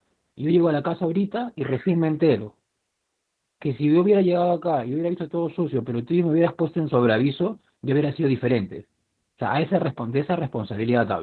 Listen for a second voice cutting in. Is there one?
No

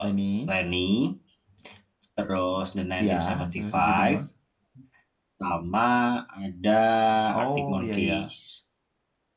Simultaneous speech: Yes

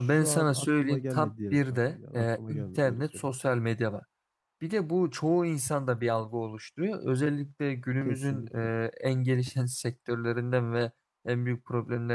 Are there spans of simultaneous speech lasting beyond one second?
Yes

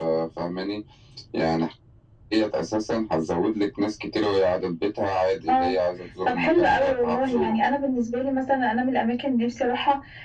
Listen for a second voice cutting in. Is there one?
Yes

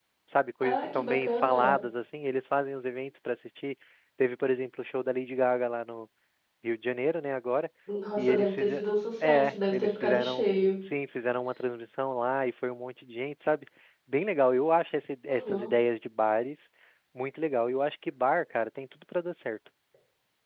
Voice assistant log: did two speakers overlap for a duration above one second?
Yes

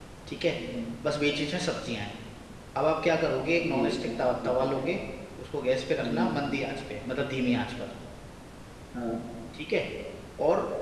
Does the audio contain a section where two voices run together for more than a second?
Yes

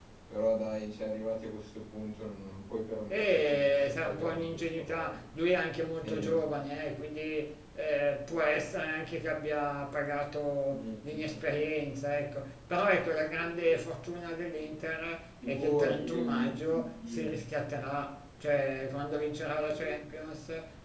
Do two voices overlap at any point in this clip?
Yes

